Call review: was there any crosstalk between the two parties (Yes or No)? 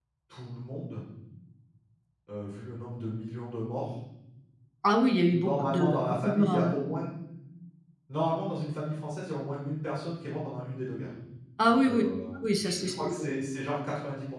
Yes